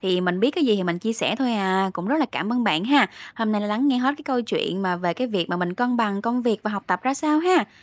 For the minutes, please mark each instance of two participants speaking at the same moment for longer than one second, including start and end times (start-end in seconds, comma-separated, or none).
none